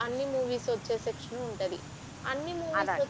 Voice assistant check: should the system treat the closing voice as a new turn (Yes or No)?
No